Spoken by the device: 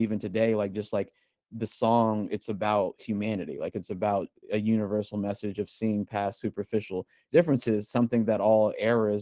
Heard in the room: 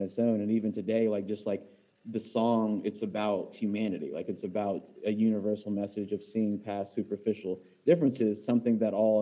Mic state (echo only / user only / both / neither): echo only